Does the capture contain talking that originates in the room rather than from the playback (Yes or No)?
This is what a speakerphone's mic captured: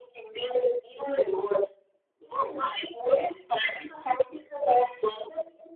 No